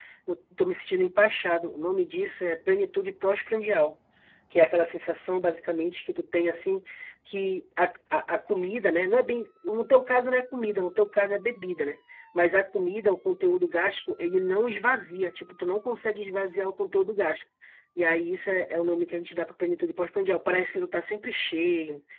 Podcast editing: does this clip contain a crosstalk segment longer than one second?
No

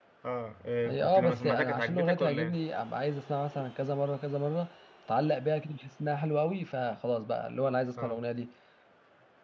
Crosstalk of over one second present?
Yes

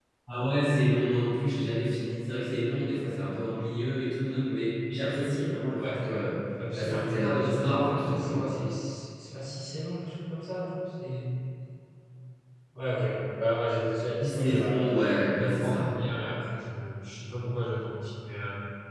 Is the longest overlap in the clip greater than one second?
Yes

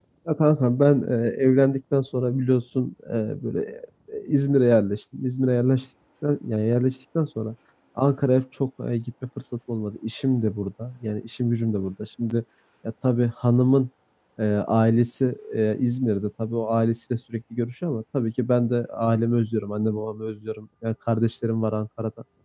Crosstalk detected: No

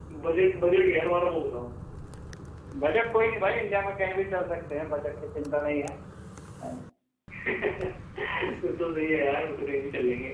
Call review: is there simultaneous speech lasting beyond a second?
No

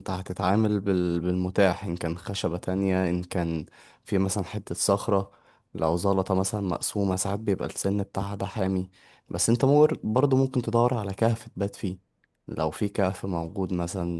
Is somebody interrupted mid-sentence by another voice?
No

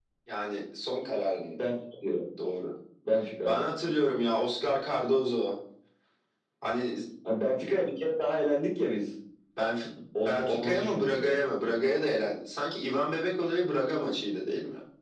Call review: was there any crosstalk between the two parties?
Yes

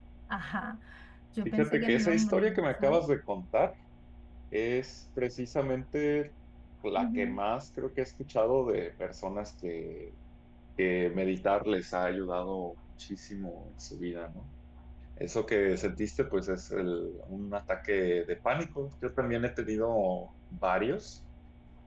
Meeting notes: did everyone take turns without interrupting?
No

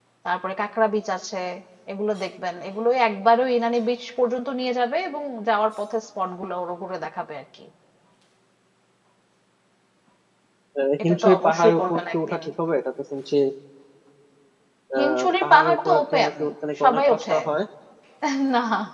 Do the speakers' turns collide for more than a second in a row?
Yes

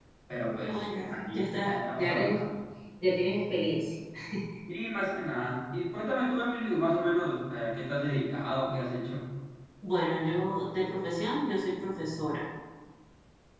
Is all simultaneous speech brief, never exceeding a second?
No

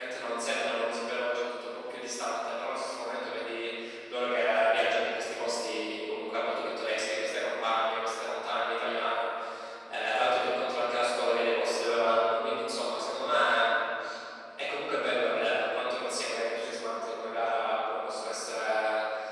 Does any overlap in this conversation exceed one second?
No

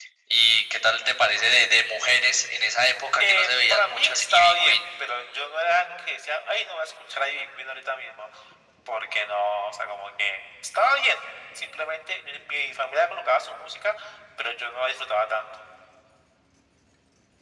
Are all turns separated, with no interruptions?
No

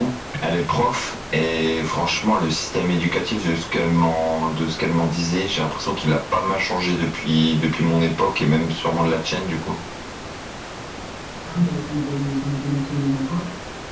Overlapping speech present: No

